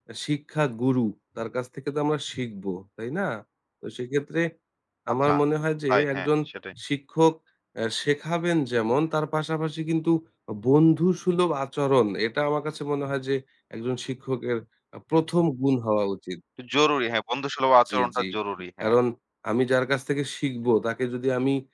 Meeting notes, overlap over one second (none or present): none